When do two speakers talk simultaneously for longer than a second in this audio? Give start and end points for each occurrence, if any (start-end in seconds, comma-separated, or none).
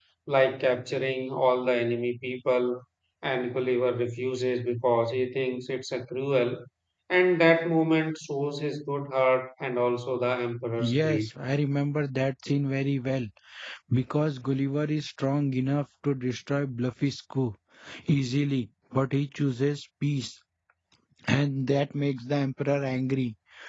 none